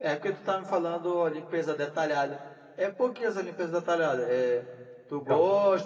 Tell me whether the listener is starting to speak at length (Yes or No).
No